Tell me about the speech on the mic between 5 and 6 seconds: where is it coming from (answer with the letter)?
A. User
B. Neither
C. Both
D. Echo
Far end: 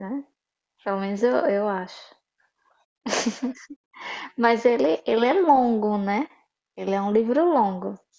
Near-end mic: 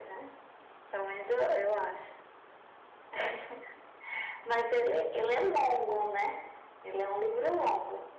D